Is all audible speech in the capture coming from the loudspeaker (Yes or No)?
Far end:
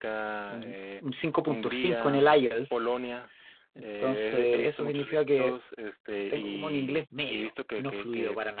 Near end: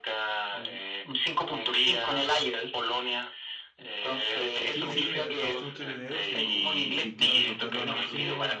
No